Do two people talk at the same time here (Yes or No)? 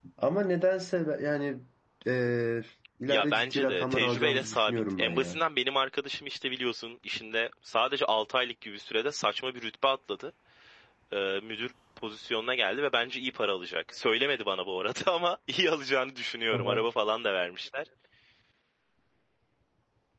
Yes